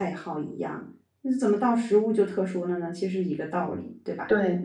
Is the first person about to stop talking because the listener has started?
Yes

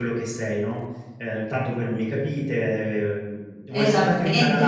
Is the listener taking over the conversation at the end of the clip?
No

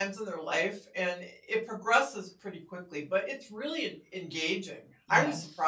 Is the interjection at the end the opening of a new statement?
Yes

